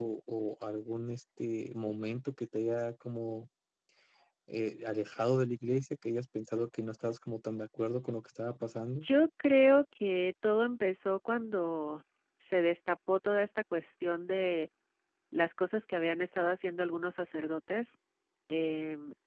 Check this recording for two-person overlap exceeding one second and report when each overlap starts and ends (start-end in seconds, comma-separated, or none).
none